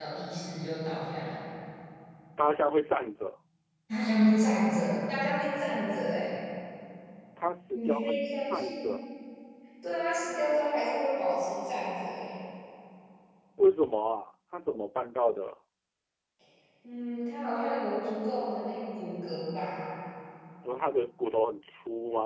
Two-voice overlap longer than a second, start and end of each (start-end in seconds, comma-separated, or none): 7.7-9.0